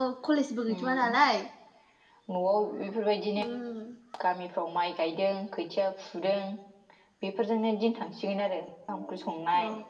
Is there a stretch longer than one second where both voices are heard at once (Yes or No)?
No